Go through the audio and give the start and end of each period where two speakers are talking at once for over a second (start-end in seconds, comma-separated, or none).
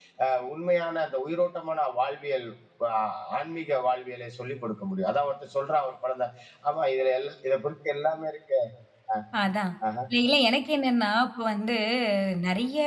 none